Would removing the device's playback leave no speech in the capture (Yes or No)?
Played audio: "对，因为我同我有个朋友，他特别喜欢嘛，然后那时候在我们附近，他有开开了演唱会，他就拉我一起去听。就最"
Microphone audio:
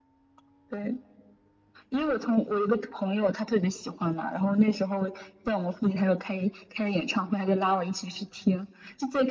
Yes